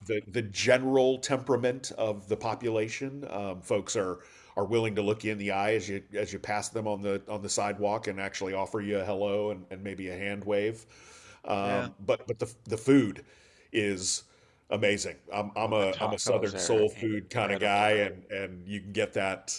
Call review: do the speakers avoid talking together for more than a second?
No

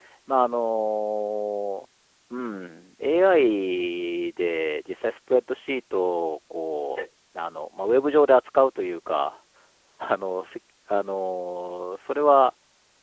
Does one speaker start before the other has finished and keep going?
No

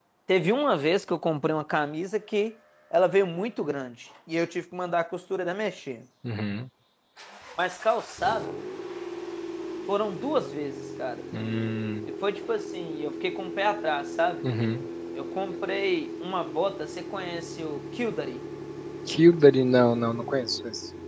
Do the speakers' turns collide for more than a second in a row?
No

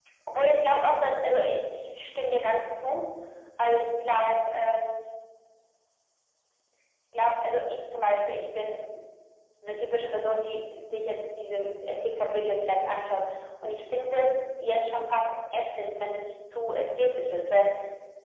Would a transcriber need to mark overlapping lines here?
No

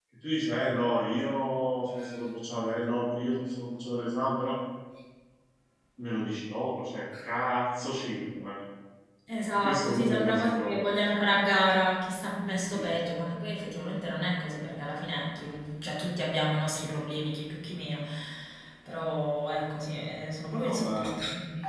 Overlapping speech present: Yes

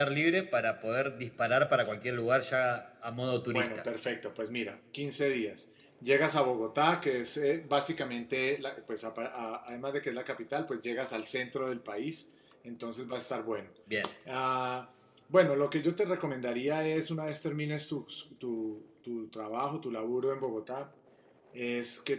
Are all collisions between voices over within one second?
Yes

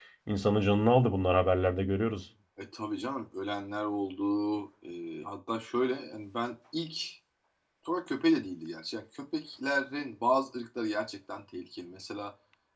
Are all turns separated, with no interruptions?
Yes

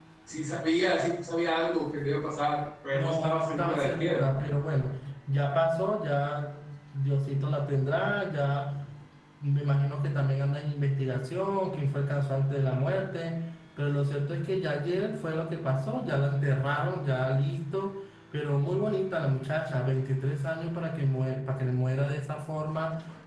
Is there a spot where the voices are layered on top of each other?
Yes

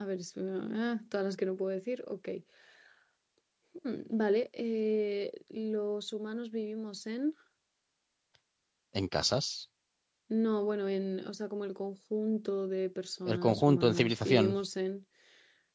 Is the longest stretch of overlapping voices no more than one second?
No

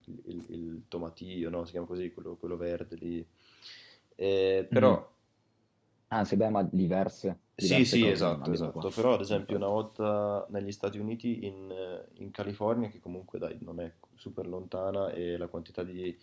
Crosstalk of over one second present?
Yes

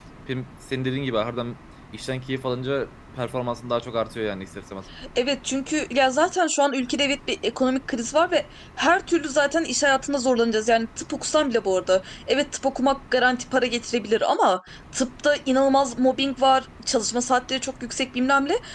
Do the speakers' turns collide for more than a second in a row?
No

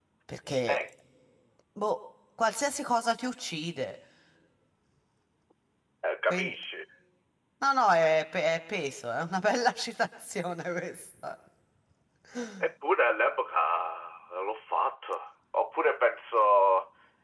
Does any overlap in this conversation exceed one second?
No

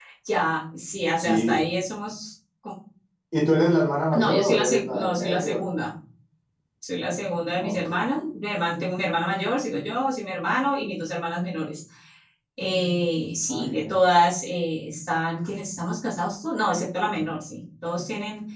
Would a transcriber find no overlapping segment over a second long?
No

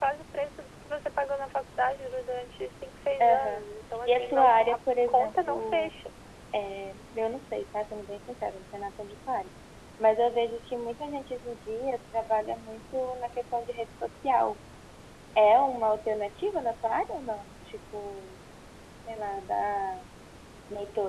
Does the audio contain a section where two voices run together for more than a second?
Yes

